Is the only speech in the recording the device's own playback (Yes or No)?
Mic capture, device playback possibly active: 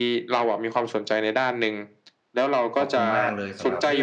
No